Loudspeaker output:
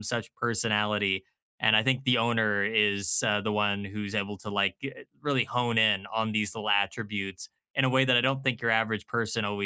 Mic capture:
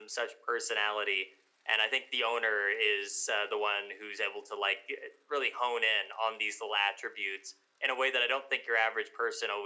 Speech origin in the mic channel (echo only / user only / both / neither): echo only